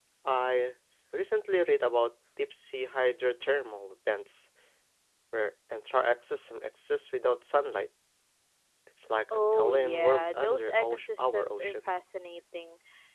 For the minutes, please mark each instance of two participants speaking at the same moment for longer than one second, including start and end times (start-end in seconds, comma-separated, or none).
9.3-11.9